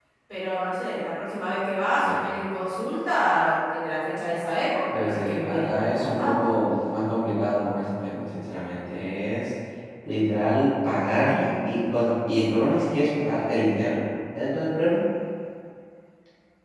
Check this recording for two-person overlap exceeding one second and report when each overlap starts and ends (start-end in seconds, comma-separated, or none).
5.0-6.5